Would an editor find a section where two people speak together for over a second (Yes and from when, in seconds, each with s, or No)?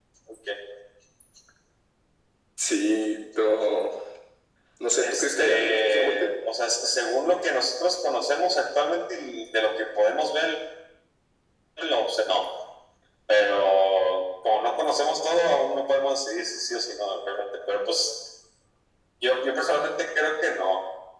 Yes, from 5.0 s